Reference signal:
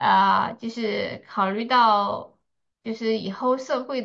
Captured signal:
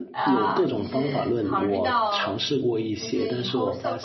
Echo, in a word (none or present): present